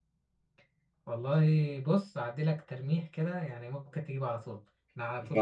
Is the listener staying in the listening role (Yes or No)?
Yes